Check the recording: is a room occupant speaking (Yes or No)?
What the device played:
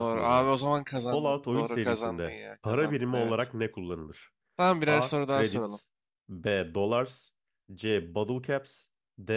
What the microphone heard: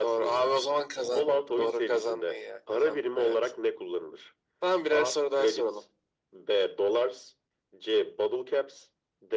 No